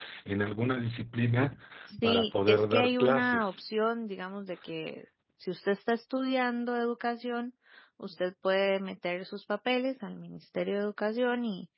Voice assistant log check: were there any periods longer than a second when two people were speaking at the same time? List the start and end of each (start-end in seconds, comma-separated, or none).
2.0-3.6